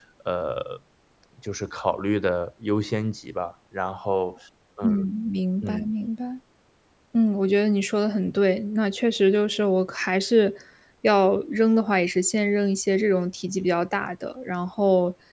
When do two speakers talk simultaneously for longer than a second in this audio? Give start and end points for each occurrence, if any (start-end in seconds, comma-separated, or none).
none